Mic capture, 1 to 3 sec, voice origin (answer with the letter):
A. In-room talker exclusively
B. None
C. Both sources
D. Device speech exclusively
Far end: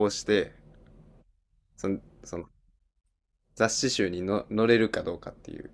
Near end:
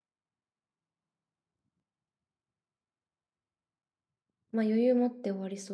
B